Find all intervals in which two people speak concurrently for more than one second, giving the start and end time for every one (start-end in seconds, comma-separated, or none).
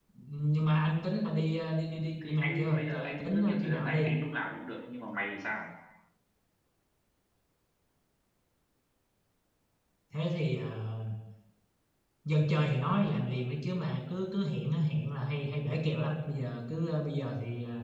2.3-4.0